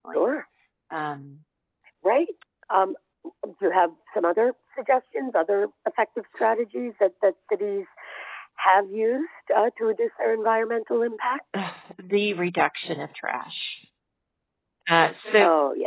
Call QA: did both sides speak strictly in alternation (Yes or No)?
Yes